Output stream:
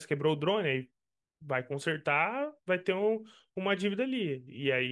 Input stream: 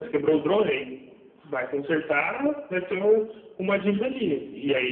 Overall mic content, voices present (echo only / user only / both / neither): echo only